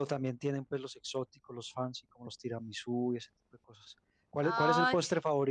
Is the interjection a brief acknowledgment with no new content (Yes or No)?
Yes